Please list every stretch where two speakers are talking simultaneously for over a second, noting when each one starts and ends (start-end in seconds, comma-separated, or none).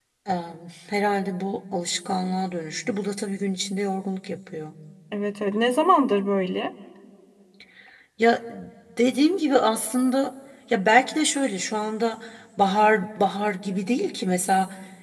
none